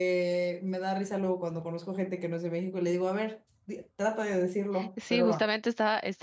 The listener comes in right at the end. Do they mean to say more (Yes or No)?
Yes